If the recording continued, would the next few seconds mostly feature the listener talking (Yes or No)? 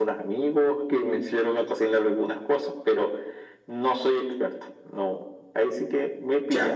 Yes